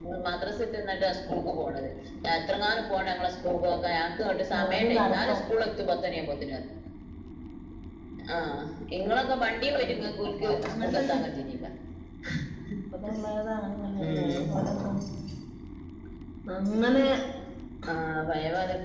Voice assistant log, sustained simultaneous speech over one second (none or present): present